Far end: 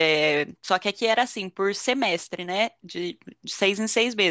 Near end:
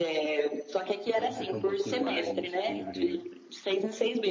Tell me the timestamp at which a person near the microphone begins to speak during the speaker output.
1 s

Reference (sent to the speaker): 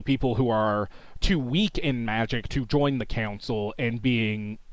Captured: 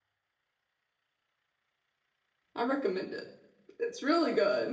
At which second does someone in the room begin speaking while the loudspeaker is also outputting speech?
3 s

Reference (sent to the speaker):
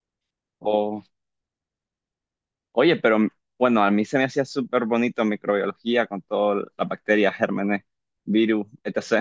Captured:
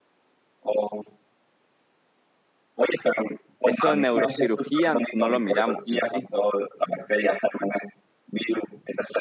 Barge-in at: 4 s

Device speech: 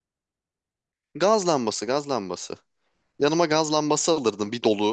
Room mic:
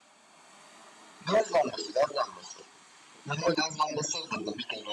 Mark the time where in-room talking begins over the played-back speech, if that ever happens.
none

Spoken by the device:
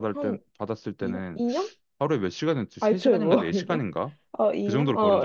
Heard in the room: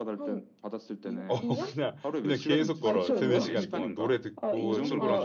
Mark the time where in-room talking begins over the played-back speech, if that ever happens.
1 s

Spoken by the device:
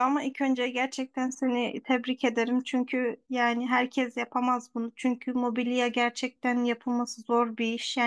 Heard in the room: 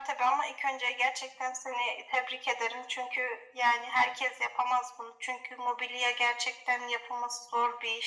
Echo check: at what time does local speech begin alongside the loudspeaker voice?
none

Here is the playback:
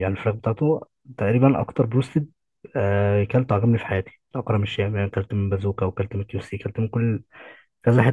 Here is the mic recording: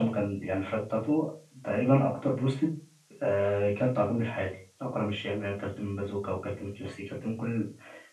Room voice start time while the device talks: none

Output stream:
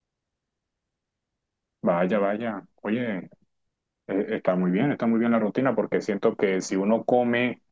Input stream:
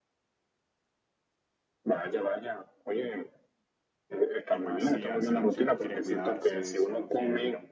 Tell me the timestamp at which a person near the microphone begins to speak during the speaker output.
4 s

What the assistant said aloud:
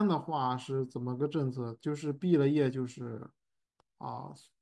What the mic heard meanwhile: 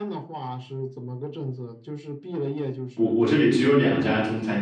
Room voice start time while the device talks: 3 s

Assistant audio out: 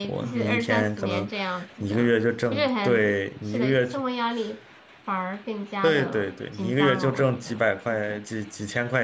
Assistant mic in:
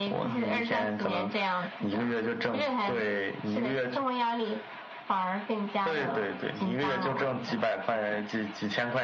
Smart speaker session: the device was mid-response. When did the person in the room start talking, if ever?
none

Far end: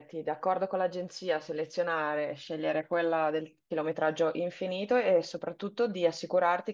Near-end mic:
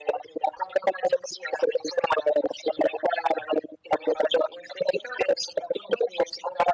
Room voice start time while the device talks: none

